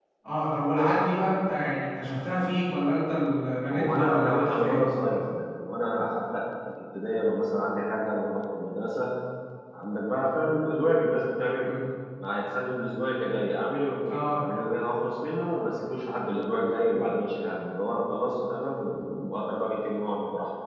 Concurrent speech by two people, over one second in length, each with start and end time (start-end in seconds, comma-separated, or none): 3.7-5.1